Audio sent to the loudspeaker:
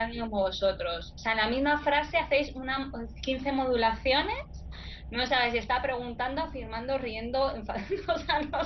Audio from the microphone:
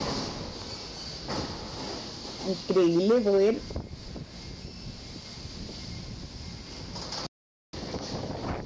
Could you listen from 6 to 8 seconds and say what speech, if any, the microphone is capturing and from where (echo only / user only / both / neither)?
neither